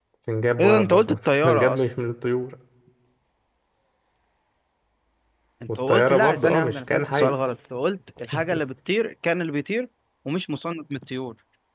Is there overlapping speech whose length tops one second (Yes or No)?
Yes